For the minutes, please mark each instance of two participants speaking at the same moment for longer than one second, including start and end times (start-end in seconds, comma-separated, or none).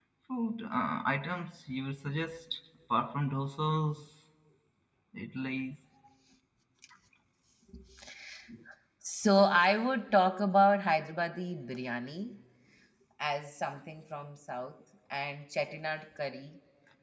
none